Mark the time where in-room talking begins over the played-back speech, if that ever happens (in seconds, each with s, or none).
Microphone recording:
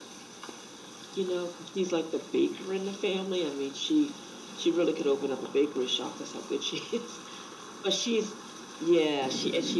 none